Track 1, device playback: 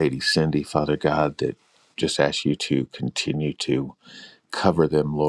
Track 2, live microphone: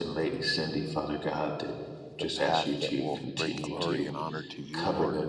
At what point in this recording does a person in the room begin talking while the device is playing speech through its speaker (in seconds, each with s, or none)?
2.2 s